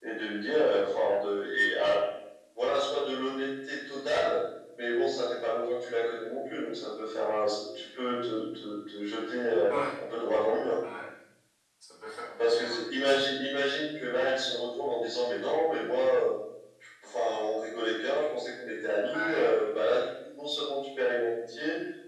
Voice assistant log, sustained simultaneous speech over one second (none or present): none